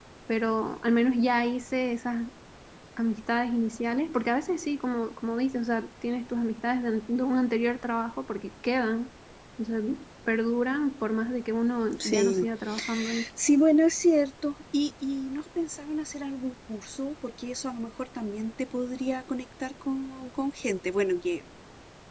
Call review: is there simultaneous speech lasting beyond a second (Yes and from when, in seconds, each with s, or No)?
No